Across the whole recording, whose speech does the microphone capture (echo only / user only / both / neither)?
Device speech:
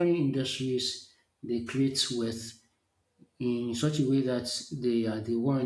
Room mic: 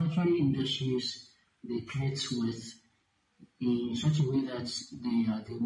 echo only